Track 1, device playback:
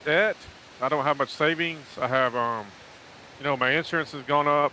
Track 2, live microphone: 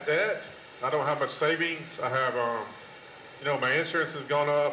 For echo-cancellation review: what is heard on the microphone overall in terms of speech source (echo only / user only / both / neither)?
echo only